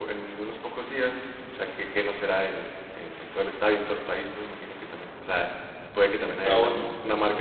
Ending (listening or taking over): listening